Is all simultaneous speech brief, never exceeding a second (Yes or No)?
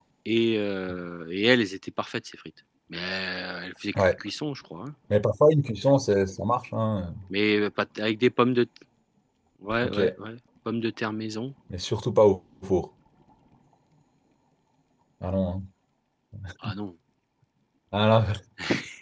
Yes